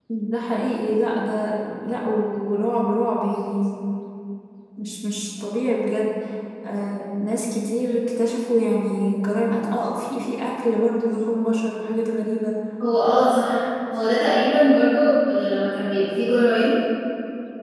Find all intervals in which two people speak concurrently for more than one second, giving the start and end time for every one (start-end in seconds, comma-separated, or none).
none